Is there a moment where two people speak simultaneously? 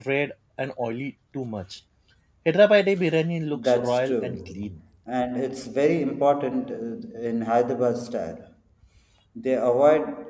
Yes, from 3.5 s

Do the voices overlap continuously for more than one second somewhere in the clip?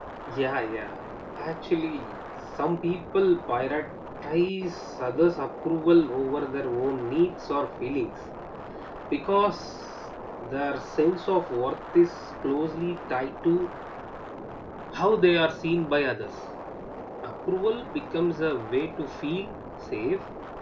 No

